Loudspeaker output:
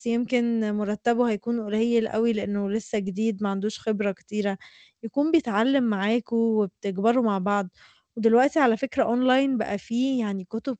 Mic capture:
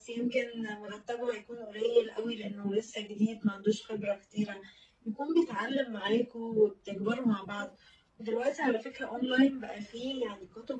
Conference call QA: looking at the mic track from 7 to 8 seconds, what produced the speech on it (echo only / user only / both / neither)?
echo only